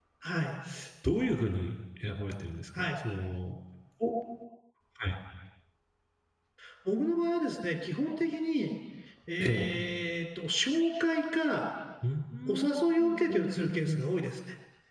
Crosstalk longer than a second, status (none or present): present